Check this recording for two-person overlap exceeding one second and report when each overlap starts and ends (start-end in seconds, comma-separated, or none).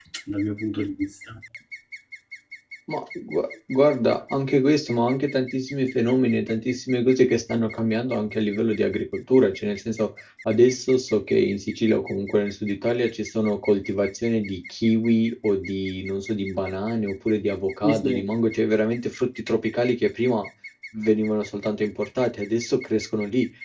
none